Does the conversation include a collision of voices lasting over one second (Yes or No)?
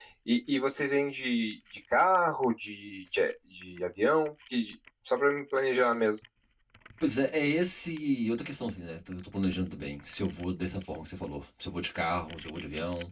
No